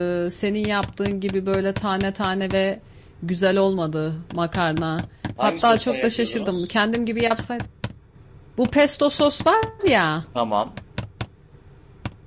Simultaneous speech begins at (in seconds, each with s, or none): 5.4 s